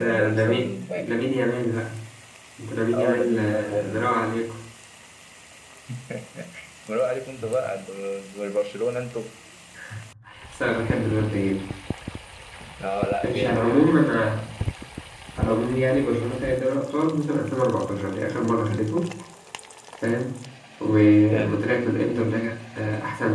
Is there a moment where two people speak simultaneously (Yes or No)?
Yes